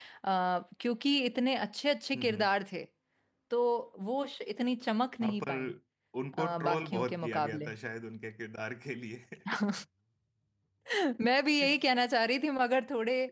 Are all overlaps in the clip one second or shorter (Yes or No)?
No